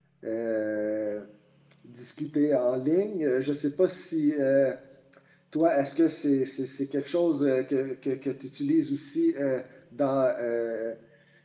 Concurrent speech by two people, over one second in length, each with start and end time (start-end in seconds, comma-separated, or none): none